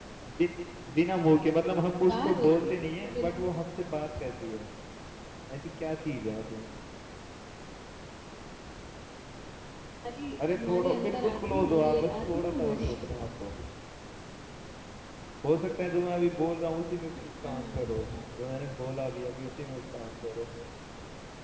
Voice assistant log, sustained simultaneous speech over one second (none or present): present